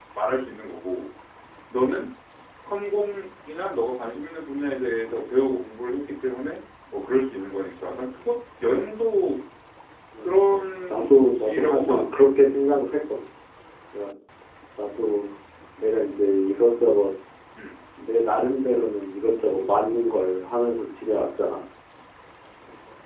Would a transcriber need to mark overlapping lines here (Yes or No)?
Yes